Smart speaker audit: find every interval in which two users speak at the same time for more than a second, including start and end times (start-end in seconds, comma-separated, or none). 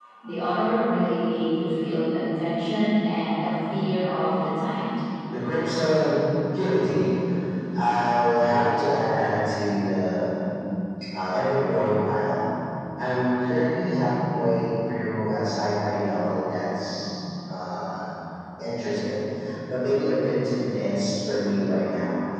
none